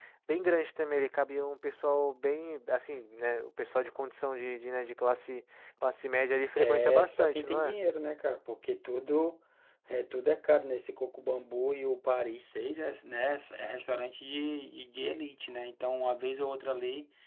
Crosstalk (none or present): present